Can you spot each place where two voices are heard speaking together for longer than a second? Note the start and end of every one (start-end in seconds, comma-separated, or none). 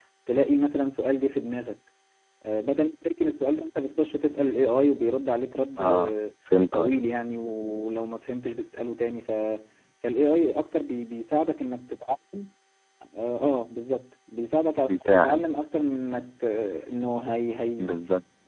none